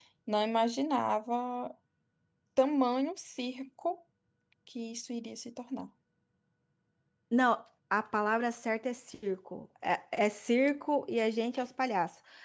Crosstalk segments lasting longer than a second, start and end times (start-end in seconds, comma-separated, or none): none